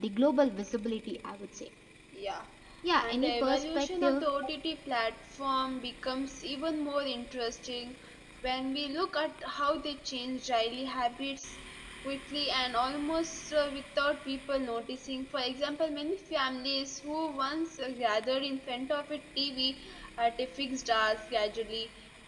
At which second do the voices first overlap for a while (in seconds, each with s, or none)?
3.0 s